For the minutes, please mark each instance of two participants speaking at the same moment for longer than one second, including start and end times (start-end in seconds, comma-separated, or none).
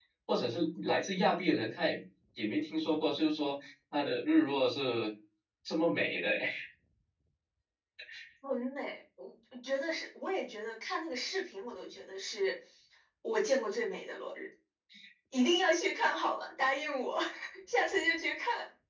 none